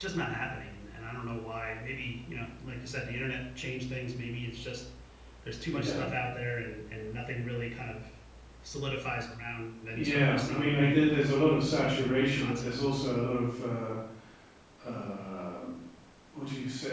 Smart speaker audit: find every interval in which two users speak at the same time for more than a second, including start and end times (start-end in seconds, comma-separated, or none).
9.9-13.3